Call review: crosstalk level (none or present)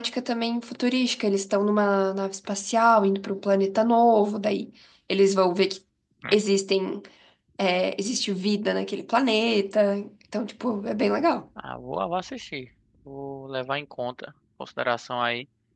none